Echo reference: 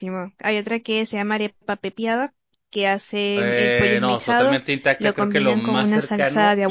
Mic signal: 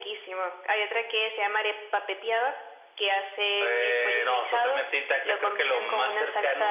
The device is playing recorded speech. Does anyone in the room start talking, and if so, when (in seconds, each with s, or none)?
none